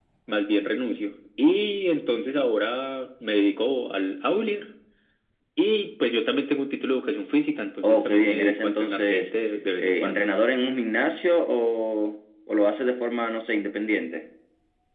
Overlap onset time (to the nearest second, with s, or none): 8 s